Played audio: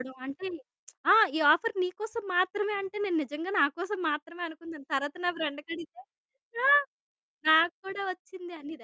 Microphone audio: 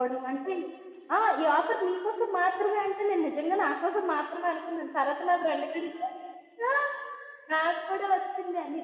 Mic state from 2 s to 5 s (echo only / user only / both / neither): echo only